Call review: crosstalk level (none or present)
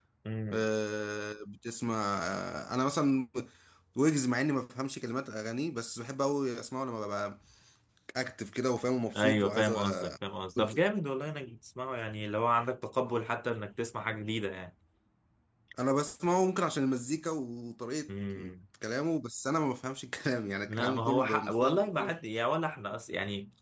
present